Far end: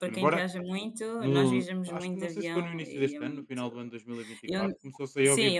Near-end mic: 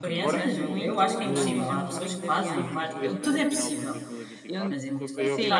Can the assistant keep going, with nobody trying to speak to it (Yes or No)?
No